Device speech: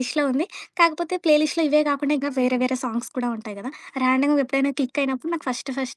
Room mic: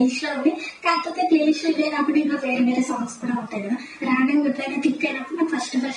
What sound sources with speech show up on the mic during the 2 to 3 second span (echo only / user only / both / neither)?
echo only